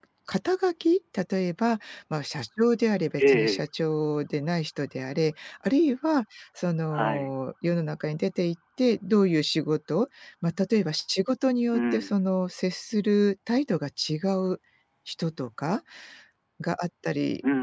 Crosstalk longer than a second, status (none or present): none